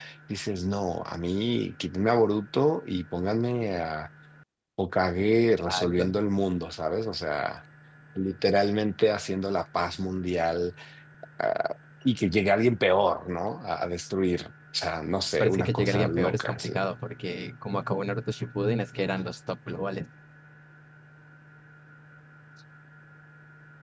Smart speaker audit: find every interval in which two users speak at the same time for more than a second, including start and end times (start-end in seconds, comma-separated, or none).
15.4-16.7